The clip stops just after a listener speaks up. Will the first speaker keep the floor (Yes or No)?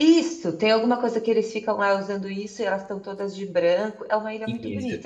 No